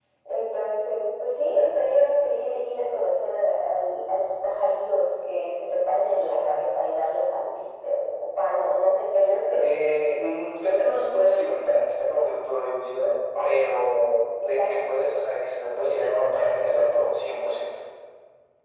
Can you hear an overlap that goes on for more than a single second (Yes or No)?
No